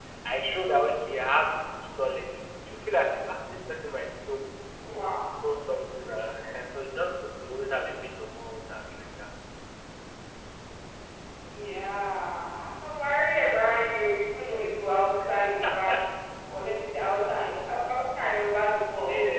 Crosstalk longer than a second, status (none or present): none